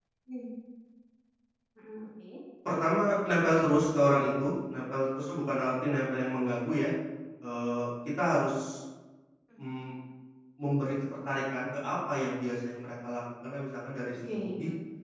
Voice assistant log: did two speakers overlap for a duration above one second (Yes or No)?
No